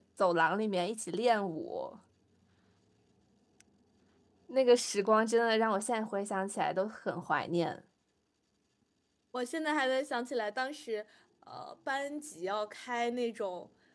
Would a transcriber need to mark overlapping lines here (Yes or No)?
No